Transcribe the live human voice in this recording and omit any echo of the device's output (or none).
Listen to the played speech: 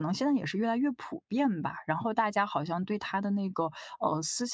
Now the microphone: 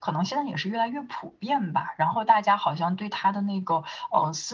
none